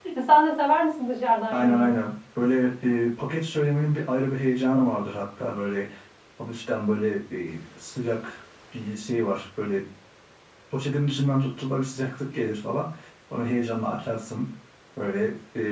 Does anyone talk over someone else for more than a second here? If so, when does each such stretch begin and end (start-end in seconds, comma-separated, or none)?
none